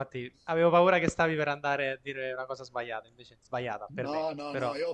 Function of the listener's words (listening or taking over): taking over